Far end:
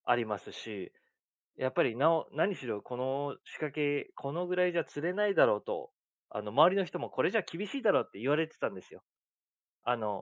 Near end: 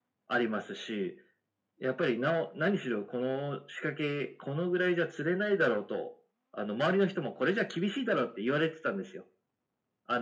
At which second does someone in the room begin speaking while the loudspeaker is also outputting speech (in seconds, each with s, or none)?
none